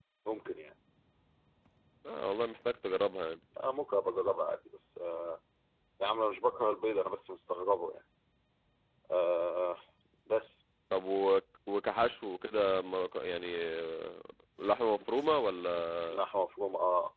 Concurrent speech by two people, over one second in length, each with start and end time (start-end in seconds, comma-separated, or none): none